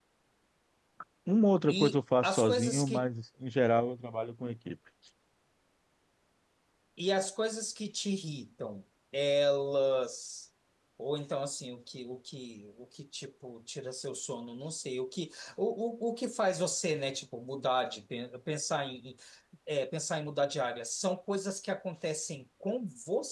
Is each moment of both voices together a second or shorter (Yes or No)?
No